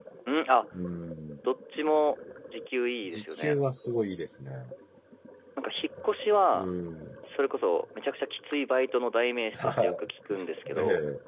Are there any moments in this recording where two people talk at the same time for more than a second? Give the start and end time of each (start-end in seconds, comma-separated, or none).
none